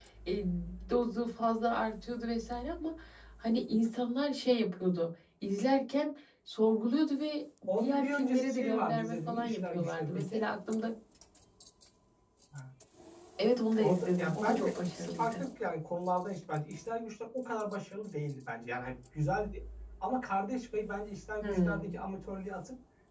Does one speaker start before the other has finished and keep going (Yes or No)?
Yes